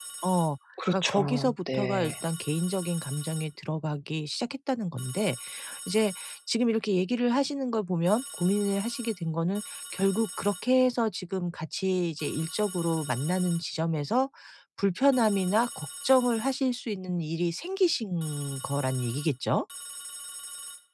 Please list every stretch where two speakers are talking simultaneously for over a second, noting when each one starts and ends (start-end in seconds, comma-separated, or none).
0.9-2.1